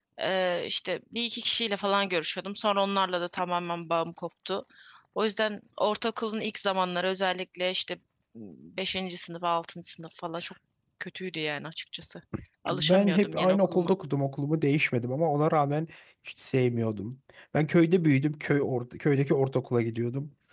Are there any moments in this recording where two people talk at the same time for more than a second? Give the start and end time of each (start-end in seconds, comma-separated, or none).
12.7-13.9